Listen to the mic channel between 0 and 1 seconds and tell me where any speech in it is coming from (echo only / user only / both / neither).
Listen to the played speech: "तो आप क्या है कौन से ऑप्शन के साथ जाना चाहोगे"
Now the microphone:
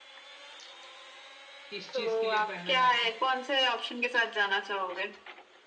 neither